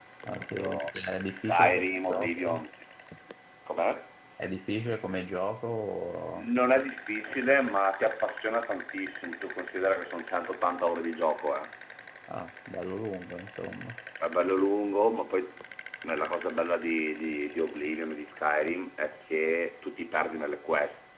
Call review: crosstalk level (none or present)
present